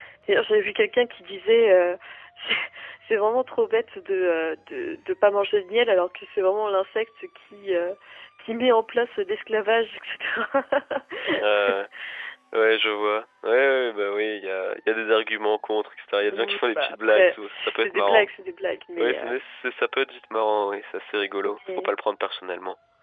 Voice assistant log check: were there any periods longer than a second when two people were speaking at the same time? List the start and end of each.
16.3-18.3

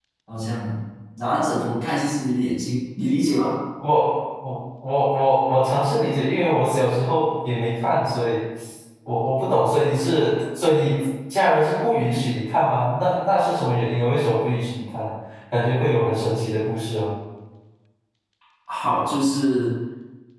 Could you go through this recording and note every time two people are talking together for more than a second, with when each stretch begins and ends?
none

